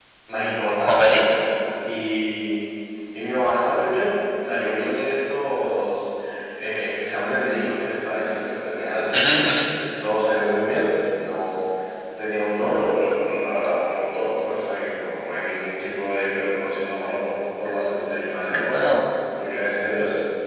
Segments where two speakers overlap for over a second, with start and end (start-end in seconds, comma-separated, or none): none